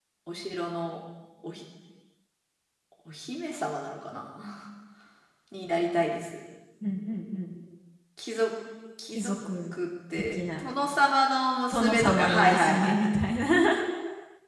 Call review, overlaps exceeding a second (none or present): present